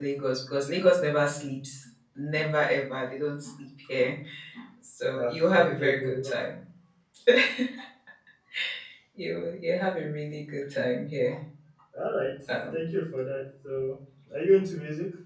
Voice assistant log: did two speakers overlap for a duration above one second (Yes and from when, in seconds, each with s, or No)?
Yes, from 5.1 s